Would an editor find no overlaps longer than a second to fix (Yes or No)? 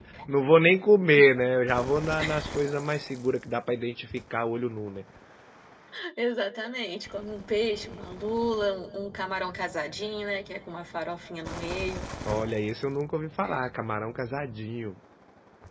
Yes